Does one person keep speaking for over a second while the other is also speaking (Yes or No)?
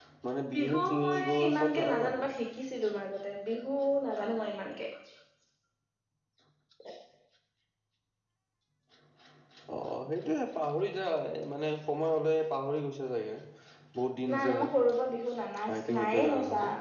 Yes